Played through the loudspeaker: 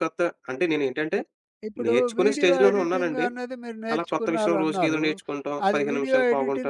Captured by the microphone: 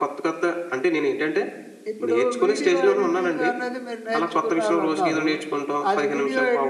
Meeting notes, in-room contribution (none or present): none